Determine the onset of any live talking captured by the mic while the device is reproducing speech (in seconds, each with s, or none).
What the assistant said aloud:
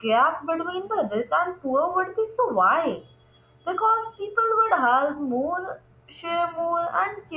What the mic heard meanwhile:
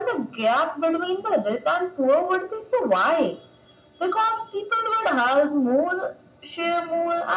none